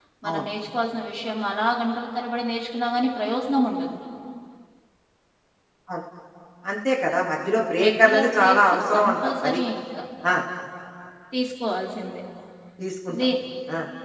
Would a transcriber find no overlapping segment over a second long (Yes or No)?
No